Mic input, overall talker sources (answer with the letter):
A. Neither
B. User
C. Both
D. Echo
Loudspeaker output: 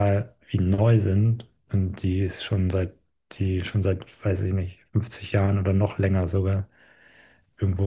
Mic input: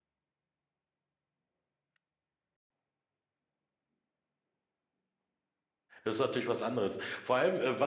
B